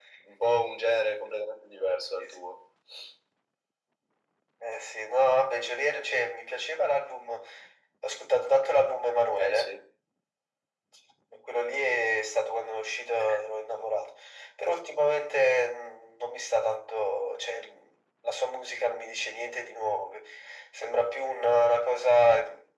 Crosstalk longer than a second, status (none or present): none